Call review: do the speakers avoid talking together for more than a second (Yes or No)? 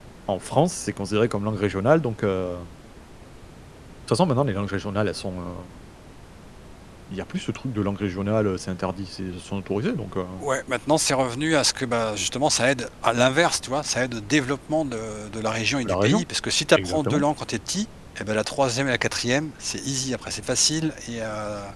Yes